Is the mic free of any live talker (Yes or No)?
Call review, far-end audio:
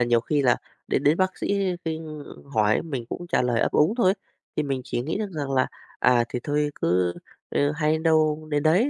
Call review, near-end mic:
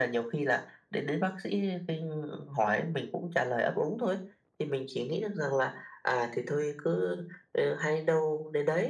Yes